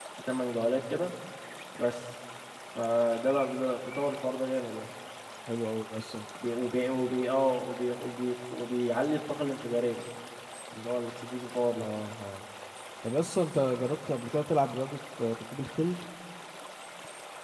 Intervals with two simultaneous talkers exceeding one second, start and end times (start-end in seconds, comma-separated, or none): none